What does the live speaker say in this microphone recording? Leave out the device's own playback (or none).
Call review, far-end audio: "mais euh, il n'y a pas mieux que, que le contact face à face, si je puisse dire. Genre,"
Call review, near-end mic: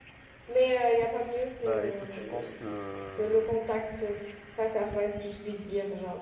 Bah écoute, je pense que